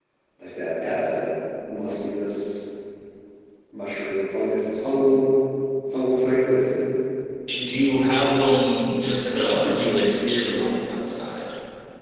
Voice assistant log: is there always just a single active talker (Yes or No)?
Yes